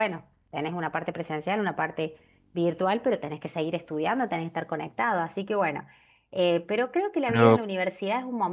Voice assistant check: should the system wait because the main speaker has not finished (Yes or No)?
Yes